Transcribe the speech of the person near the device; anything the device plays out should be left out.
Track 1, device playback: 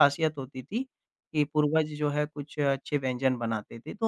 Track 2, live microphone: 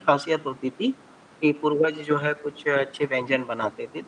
none

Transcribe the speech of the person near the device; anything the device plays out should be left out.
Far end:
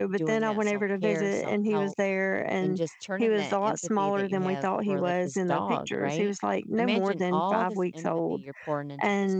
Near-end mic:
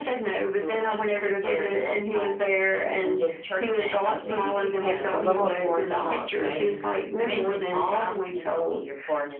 Uh, maybe just have a little more something

